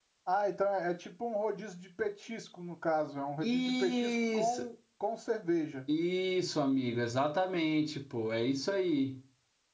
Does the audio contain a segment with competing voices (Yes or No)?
Yes